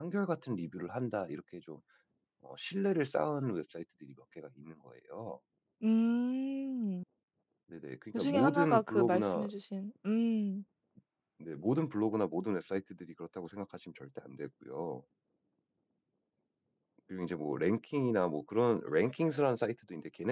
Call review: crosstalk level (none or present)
present